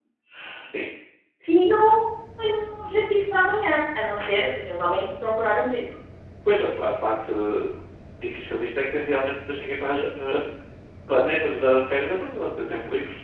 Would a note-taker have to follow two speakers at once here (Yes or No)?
No